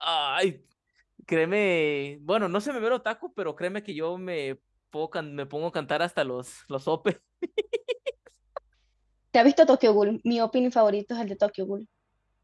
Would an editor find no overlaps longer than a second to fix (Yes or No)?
Yes